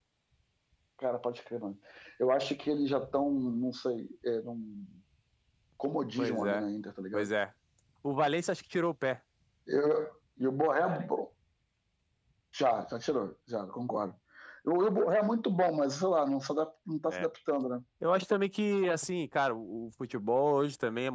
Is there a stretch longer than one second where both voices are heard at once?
No

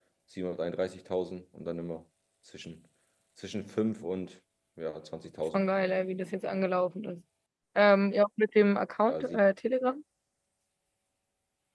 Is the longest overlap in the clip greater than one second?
No

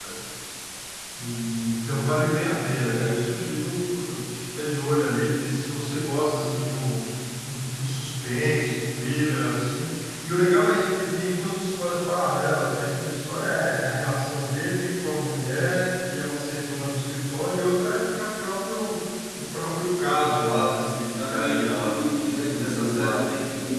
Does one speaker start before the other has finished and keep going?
Yes, from 20.8 s

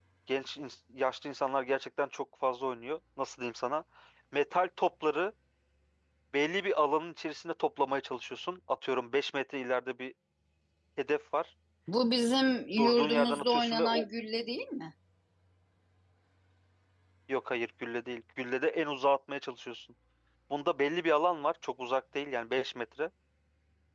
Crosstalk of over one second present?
Yes, from 12.8 s

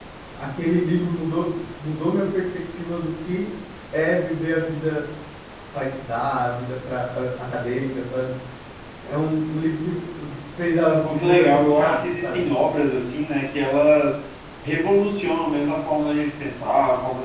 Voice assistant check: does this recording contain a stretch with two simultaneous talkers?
Yes, from 11.2 s

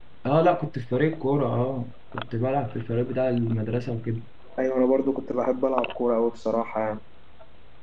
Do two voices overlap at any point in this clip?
No

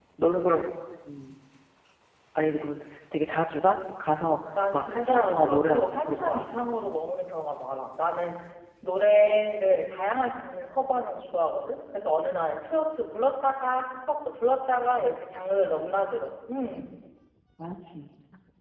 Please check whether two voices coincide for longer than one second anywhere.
Yes, from 4.7 s

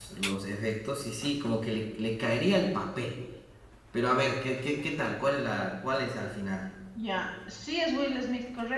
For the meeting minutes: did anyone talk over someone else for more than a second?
No

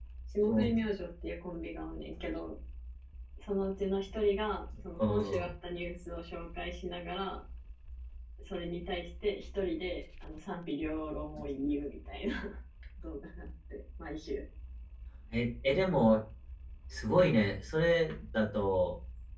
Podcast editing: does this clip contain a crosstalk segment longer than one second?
No

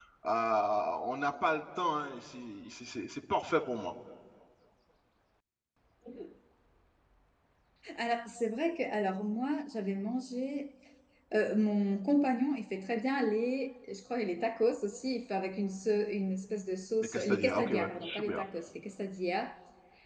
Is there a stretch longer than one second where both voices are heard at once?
Yes, from 17.1 s

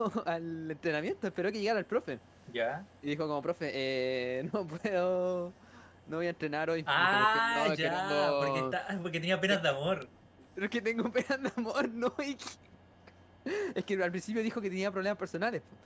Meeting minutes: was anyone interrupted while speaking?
Yes, from 6.9 s

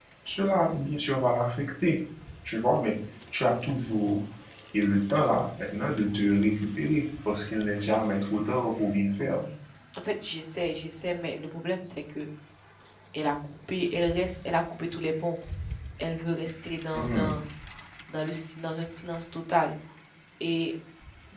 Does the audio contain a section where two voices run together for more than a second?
No

